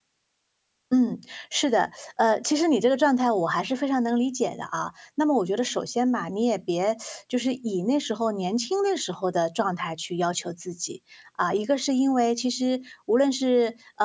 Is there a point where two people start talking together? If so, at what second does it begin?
none

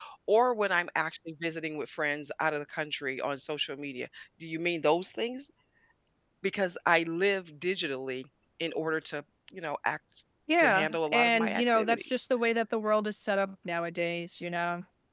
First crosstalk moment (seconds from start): 10.5 s

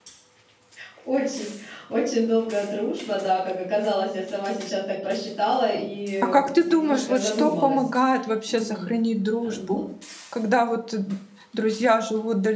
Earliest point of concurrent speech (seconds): 6.2 s

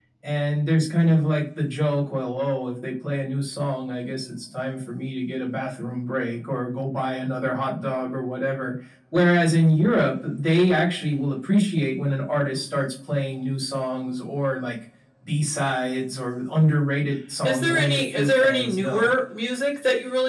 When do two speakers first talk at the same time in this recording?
17.4 s

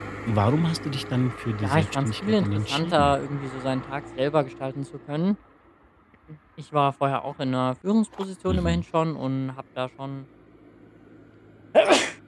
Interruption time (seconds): 1.6 s

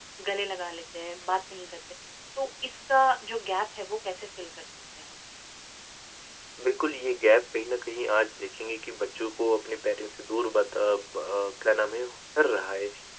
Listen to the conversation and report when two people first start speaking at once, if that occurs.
none

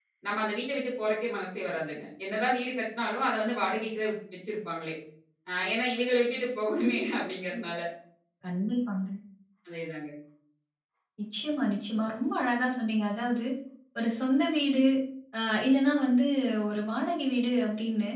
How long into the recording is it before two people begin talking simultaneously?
none

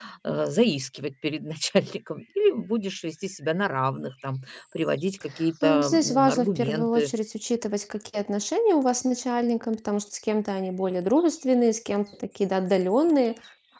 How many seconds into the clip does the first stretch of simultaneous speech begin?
5.6 s

